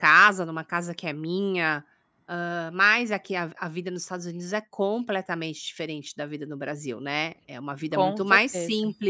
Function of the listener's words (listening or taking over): listening